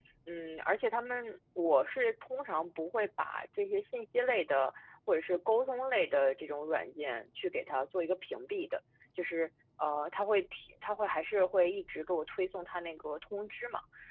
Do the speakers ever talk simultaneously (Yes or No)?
No